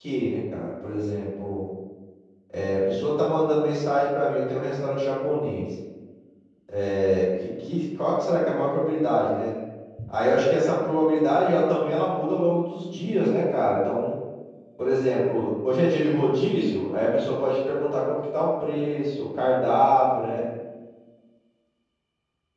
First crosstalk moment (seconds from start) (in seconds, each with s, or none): none